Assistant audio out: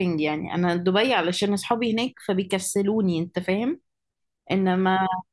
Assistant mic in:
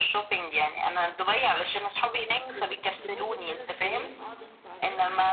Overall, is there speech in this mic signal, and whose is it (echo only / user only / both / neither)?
both